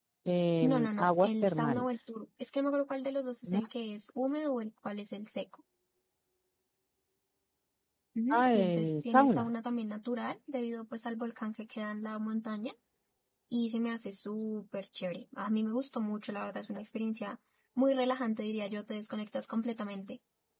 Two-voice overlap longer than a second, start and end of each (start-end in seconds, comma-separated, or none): 0.6-1.9, 8.3-9.5